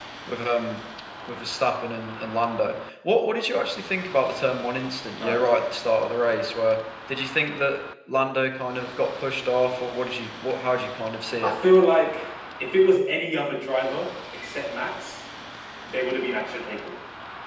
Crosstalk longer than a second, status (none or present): none